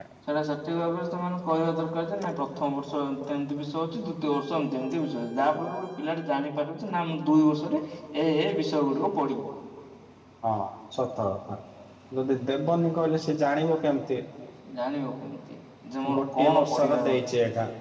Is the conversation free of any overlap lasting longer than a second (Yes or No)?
No